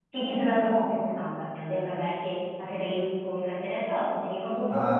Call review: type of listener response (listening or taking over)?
taking over